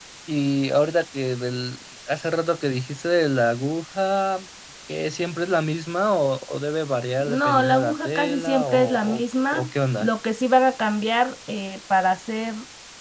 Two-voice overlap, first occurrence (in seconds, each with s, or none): 7.2 s